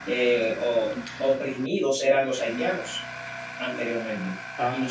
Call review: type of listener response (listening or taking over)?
listening